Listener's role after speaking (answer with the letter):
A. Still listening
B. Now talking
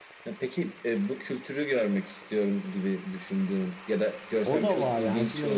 B